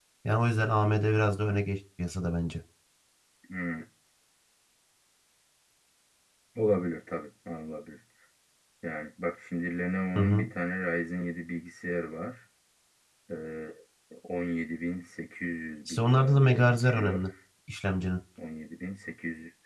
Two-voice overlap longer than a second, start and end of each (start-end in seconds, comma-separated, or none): 15.9-17.2